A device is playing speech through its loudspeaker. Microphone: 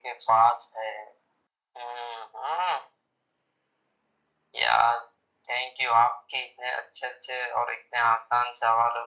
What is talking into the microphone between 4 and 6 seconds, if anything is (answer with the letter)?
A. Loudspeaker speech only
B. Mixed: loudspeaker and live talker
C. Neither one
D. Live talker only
A